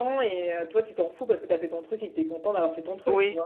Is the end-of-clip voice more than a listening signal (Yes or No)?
Yes